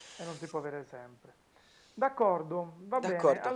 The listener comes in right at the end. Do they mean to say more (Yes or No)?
No